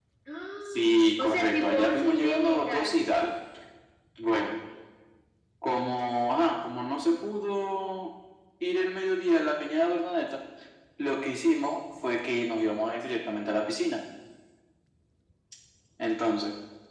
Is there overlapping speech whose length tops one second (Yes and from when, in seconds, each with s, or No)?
Yes, from 0.7 s